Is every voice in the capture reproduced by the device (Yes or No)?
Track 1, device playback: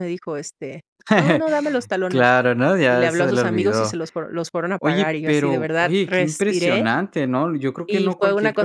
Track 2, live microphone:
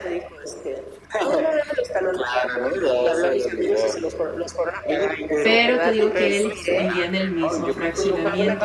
No